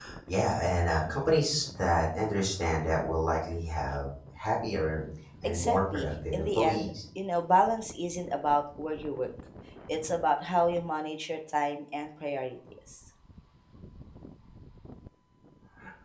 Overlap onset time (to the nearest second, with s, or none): 5 s